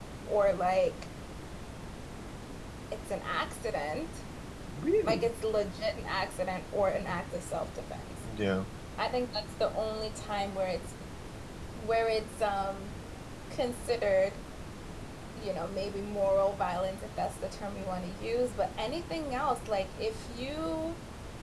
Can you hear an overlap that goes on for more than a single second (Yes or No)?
No